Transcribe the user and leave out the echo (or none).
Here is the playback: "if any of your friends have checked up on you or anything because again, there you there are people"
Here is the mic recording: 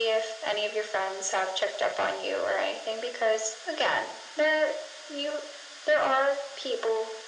none